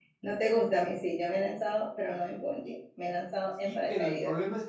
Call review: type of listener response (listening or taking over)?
taking over